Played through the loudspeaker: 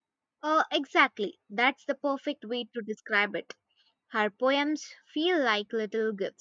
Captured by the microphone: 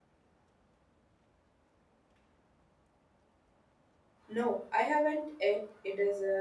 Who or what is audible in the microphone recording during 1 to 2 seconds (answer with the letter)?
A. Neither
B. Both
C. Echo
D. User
A